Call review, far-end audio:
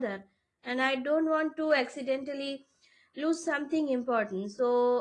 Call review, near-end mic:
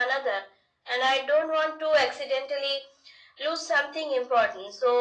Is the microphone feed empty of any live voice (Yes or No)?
Yes